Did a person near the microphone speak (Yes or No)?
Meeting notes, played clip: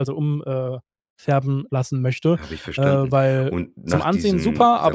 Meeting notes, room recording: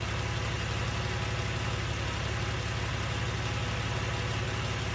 No